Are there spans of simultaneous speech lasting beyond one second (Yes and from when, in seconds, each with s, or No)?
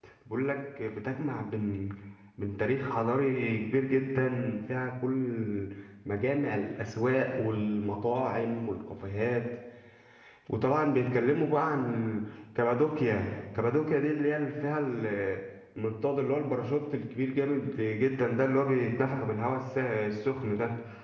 No